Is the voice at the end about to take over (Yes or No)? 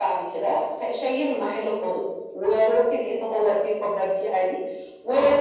No